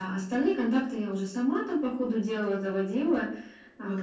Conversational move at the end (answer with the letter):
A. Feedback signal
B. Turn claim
B